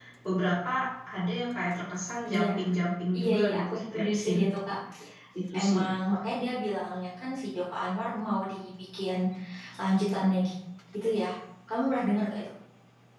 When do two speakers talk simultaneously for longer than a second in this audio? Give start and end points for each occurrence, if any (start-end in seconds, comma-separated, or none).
3.2-4.4